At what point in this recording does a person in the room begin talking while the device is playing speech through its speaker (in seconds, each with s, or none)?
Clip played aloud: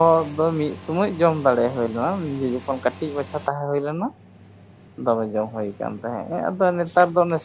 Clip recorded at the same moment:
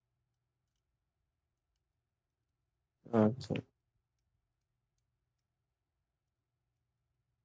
3.1 s